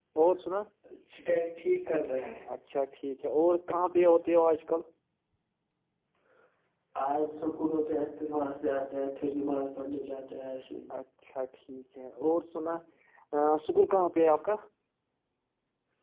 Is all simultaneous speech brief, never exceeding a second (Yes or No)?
Yes